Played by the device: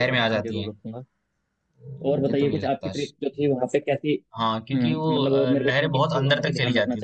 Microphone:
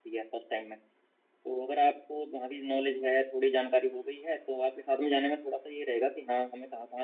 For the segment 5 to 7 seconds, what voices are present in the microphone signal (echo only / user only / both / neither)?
user only